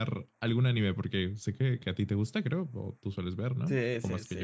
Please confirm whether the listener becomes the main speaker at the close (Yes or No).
Yes